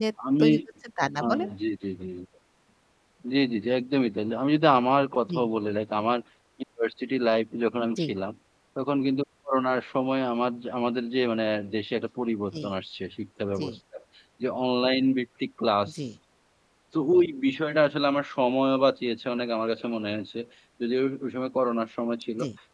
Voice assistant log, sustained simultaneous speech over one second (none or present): none